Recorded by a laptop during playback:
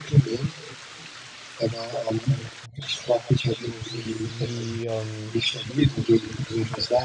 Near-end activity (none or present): present